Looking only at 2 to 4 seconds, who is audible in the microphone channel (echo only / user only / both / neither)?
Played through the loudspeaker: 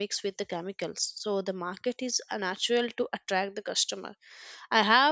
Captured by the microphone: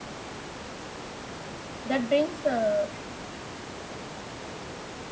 user only